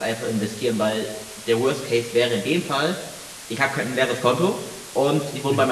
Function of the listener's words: listening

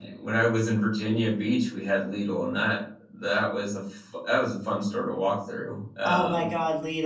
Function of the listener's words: taking over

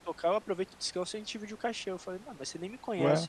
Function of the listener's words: listening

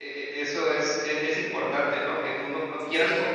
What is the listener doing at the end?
listening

